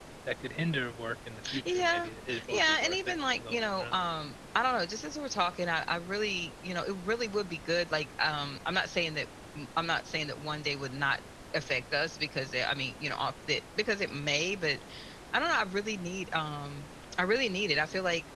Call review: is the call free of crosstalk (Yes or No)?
No